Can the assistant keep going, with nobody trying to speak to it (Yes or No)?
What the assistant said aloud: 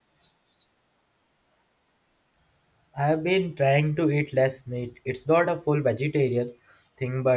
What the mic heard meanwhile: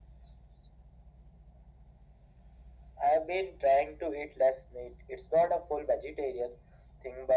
Yes